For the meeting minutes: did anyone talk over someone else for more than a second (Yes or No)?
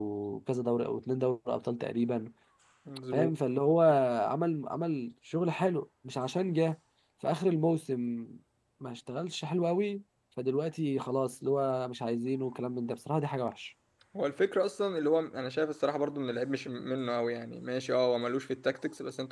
No